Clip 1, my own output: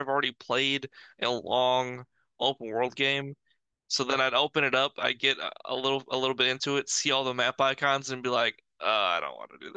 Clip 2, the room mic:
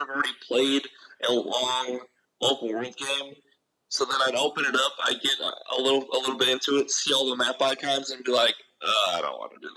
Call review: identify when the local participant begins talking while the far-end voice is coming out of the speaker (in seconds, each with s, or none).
none